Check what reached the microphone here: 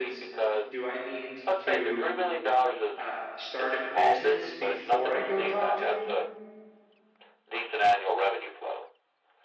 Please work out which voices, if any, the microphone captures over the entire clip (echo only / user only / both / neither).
both